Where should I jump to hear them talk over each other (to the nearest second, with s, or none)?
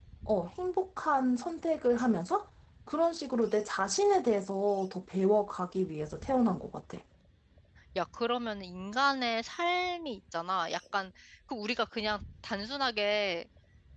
none